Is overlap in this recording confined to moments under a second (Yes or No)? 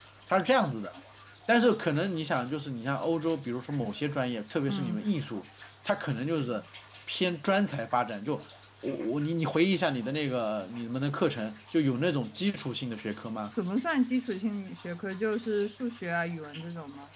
Yes